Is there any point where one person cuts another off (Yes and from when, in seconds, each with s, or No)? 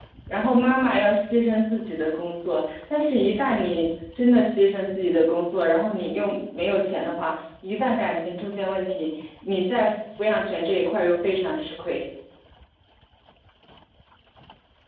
No